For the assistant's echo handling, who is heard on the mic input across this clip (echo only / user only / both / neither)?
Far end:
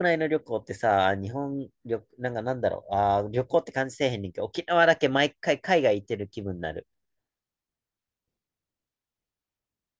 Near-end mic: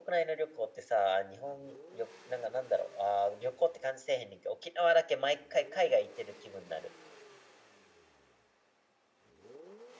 echo only